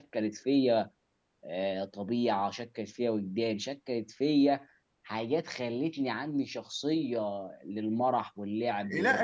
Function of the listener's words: taking over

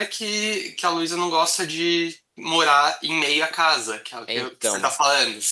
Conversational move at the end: listening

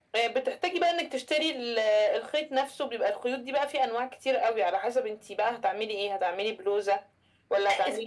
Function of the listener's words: taking over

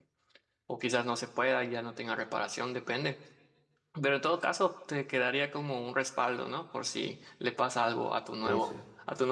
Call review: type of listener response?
listening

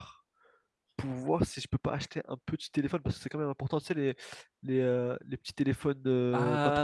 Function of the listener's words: taking over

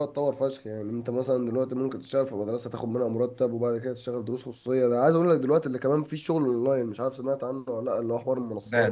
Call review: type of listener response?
taking over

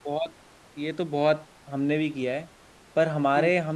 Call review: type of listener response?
listening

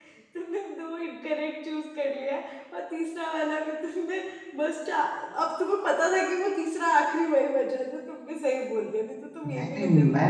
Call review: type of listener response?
taking over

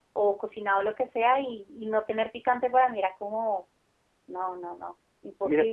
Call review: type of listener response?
taking over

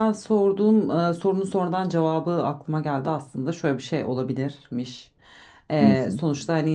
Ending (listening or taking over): listening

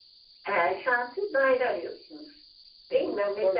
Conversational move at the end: taking over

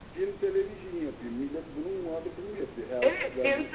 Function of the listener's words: taking over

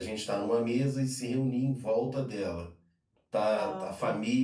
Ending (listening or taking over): listening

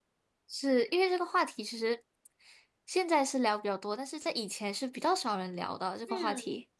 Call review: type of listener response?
taking over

